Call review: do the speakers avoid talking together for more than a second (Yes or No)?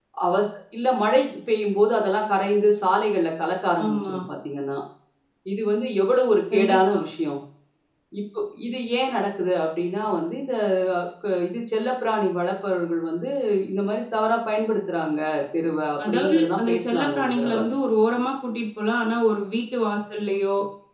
No